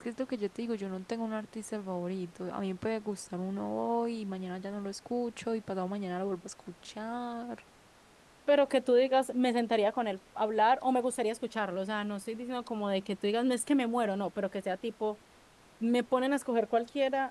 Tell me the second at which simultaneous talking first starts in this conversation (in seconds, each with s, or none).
none